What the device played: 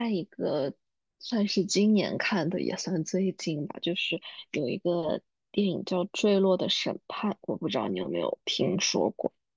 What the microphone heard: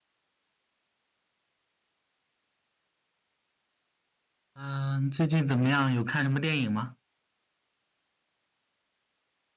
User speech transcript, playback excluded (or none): 嗯，最近怎么样？有看什么电影吗？